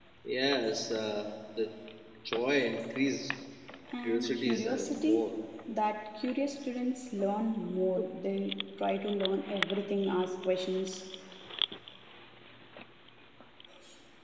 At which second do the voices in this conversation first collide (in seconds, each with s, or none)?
4.0 s